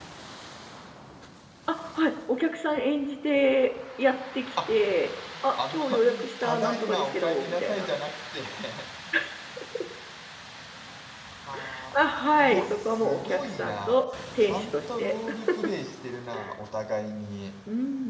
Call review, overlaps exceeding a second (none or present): present